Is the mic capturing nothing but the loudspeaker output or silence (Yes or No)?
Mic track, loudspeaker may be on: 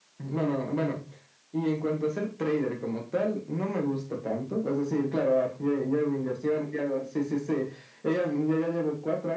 Yes